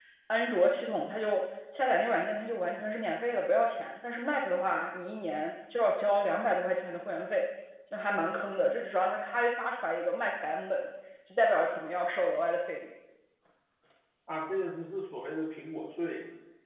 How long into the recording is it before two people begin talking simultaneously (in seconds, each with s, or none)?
none